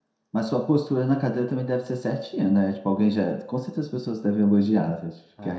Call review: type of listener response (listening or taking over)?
taking over